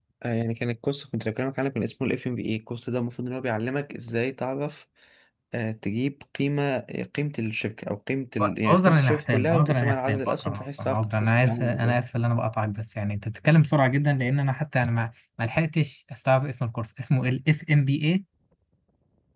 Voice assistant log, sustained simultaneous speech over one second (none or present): present